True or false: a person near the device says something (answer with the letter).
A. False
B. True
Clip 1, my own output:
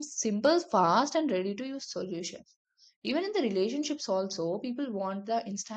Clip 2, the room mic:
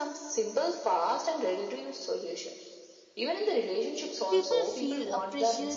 B